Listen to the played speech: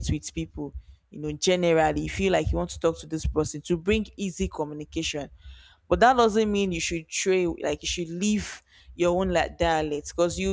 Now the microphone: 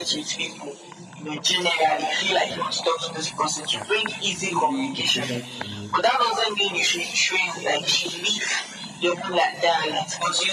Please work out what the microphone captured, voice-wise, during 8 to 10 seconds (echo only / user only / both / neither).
echo only